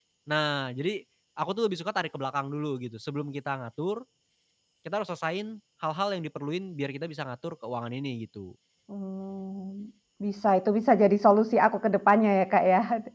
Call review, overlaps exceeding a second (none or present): none